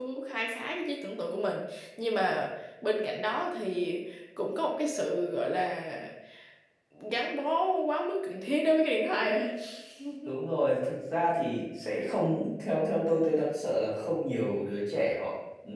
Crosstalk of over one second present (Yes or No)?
No